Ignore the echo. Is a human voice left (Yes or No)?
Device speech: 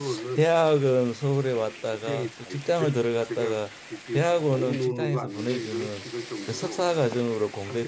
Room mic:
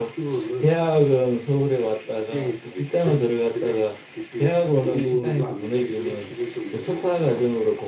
No